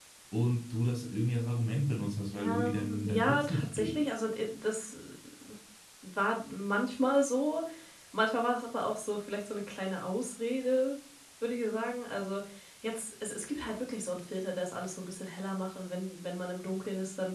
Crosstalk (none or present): present